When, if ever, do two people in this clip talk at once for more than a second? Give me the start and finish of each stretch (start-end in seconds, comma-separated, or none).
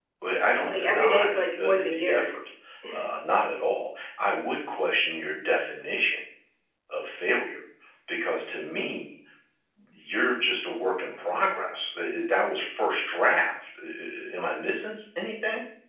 0.6-2.3